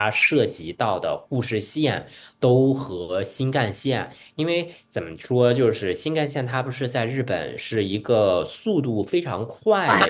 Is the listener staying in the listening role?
Yes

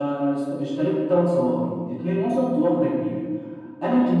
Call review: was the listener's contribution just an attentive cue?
Yes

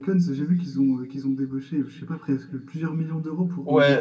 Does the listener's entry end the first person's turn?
Yes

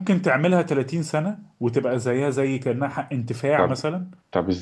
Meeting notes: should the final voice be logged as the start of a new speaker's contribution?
Yes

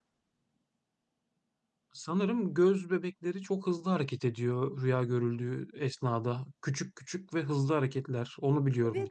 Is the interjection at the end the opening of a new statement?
Yes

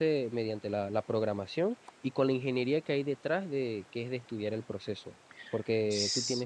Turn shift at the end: Yes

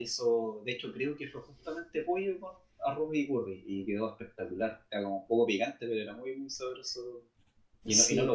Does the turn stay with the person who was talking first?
Yes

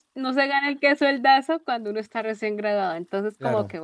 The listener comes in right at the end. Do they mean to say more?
No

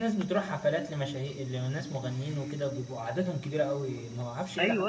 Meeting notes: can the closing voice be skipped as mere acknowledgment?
No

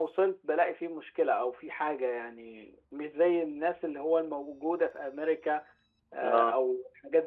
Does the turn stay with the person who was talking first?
Yes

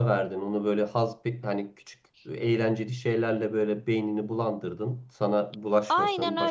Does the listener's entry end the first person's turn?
Yes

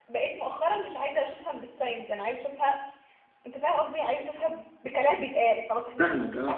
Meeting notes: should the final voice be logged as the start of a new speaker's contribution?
Yes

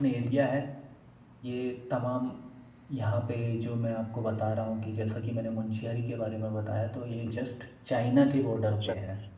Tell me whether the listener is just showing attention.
No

